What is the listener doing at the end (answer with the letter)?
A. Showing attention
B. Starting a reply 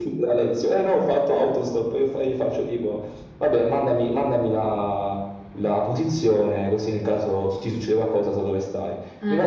A